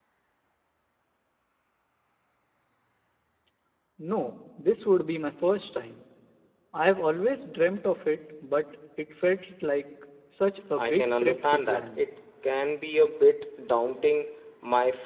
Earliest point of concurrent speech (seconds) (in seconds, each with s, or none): 10.7 s